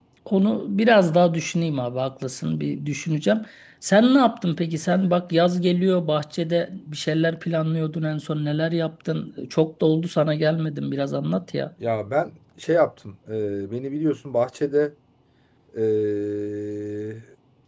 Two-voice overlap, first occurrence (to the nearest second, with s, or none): none